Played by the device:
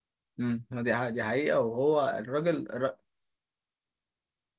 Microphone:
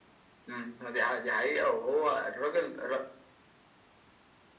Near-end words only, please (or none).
none